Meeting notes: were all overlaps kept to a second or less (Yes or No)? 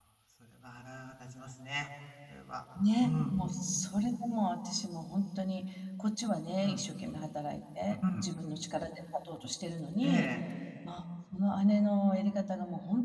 Yes